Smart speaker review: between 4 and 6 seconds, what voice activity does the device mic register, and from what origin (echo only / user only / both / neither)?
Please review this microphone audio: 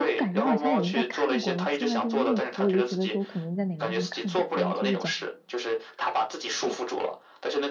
both